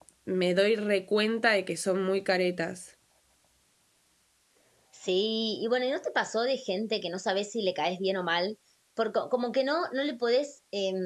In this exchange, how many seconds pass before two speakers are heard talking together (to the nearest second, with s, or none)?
none